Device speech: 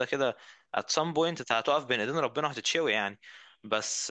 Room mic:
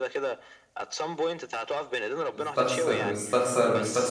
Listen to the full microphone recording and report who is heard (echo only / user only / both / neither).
both